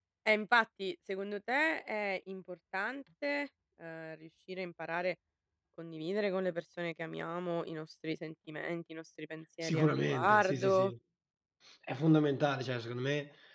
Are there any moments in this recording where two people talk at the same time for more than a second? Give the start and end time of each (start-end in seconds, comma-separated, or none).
9.6-10.9